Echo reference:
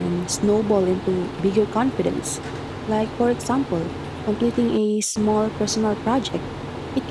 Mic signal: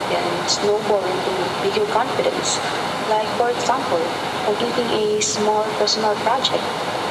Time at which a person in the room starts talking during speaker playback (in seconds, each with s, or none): none